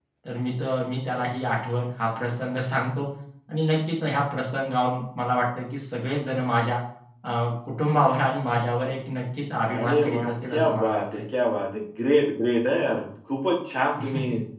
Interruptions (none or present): present